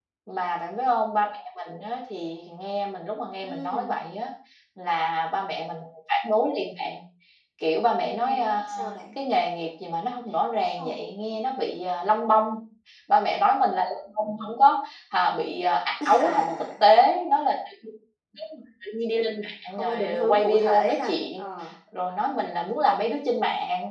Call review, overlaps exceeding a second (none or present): present